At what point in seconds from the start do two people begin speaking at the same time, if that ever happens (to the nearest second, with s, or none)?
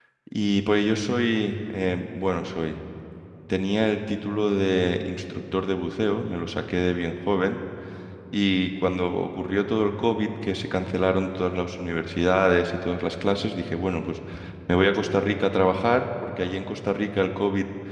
none